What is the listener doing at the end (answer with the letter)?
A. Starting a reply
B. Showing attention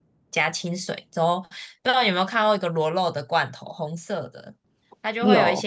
B